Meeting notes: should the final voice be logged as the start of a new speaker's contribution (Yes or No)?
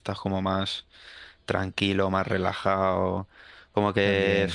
No